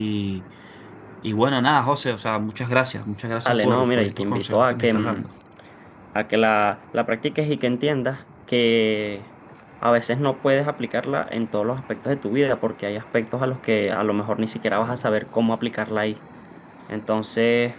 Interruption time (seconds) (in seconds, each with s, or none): 3.4 s